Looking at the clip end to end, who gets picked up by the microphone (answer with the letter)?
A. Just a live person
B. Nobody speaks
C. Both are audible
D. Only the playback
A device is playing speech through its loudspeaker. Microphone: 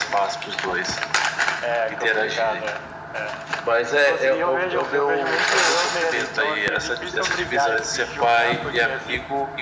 D